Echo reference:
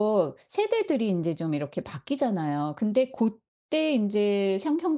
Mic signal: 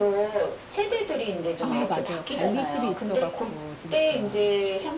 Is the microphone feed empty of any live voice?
No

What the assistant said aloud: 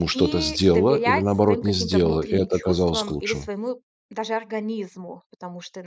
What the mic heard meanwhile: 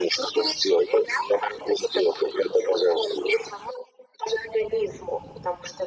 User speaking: No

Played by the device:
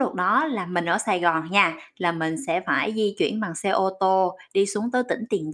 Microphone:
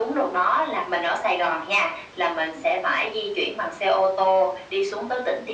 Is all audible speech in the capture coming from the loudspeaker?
Yes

